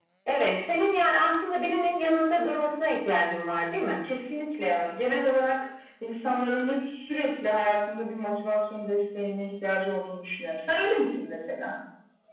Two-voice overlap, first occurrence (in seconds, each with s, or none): none